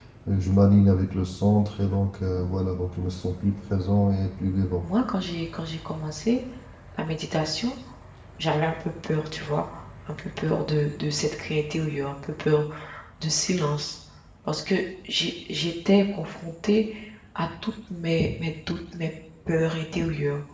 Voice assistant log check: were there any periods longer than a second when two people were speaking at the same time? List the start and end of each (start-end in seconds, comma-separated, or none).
none